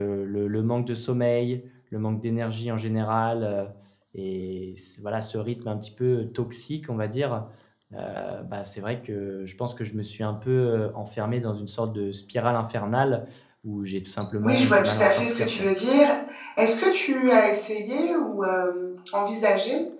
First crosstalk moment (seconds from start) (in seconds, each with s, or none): 14.4 s